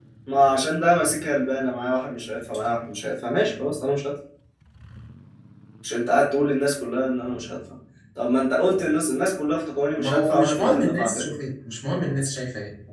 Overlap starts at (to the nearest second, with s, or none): 10 s